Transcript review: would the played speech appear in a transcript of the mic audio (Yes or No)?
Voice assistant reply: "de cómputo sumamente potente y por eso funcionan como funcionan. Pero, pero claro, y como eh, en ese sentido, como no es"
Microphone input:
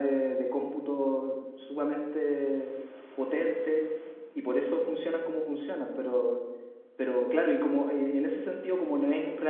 Yes